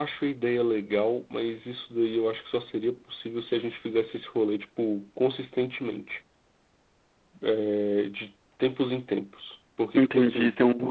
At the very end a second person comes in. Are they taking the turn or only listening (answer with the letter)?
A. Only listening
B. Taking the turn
B